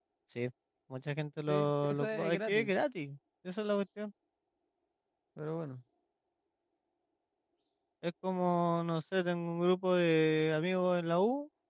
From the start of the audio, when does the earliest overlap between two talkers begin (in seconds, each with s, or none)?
1.5 s